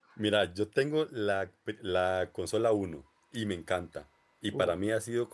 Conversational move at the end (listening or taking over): listening